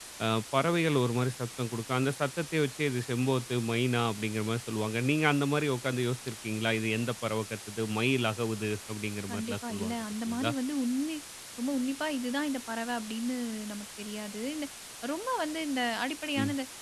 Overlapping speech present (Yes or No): Yes